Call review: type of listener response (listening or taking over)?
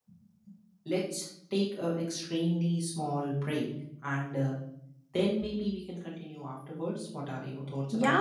taking over